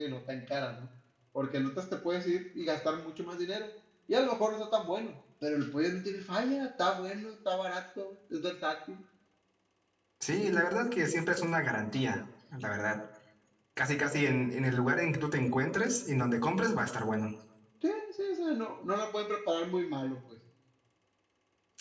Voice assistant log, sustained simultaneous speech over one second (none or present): none